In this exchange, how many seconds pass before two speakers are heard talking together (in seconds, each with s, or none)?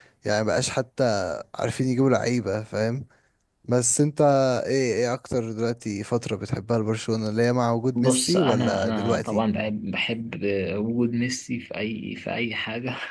8.0 s